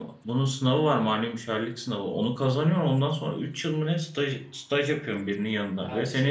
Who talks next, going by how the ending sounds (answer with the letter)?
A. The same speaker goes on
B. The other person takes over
B